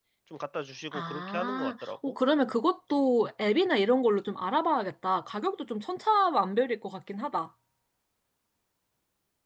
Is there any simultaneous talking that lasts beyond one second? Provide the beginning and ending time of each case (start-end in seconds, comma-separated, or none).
0.9-2.2